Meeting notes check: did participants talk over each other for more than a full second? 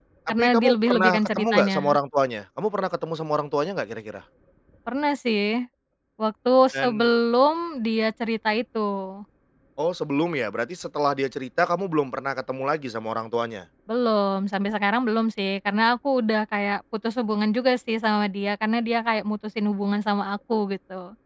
Yes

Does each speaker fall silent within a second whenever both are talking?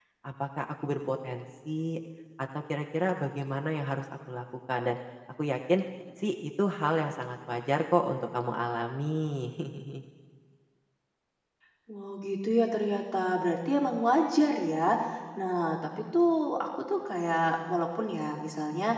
Yes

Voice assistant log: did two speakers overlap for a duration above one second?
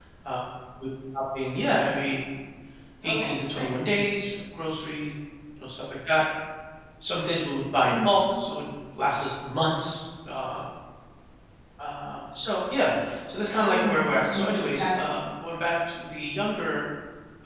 Yes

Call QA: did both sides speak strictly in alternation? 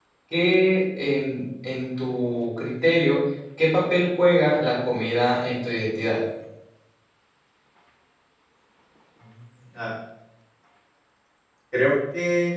Yes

